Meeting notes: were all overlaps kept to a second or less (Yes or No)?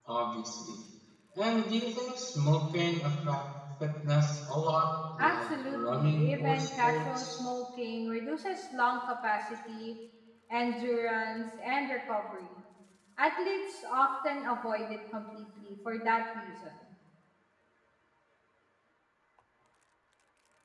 No